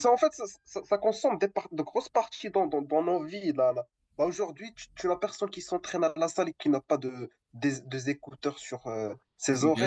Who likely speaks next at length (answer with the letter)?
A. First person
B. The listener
B